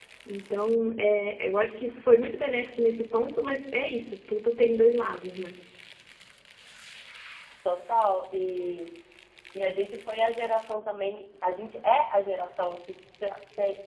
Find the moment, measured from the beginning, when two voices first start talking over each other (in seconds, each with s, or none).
none